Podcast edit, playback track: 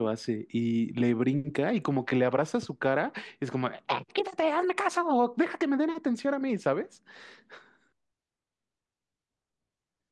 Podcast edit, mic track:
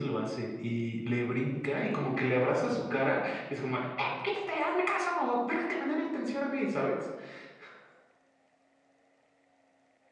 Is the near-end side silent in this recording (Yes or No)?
Yes